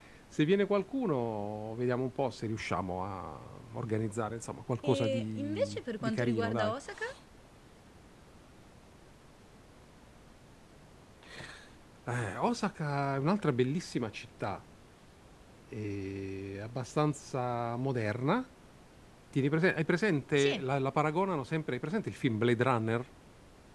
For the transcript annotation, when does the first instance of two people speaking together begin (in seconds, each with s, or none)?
4.8 s